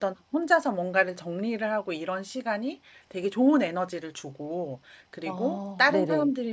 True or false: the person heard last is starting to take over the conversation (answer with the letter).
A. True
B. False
B